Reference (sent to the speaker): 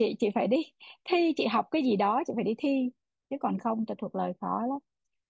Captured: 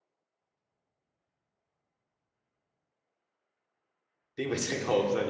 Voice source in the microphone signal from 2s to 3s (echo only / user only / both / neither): neither